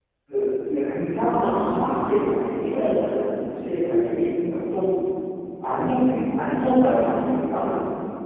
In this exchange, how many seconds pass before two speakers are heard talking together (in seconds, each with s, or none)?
1.4 s